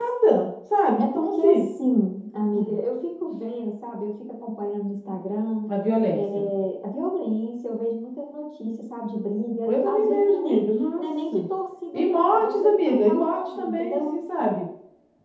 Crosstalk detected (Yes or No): Yes